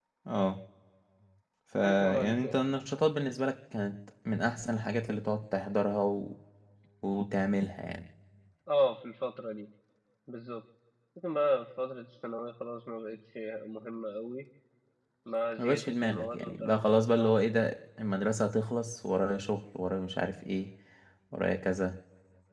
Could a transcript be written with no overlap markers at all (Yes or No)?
No